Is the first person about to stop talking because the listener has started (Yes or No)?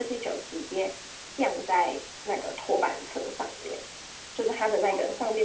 No